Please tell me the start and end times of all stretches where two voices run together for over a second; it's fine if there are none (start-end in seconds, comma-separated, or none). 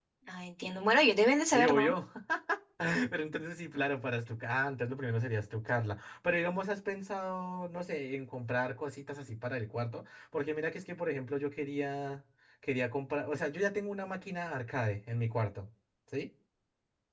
none